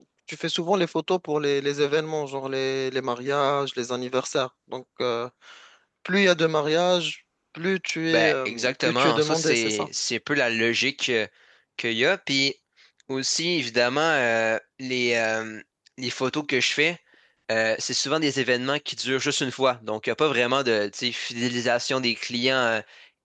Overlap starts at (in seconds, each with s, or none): 8.1 s